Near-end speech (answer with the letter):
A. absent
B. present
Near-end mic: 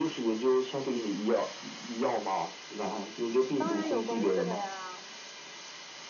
B